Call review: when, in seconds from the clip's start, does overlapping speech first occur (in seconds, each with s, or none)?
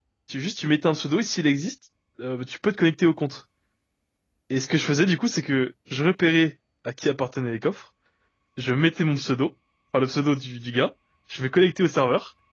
none